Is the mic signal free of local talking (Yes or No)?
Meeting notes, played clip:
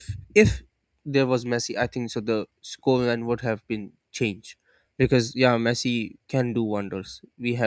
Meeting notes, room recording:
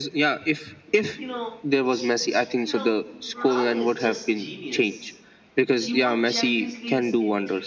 No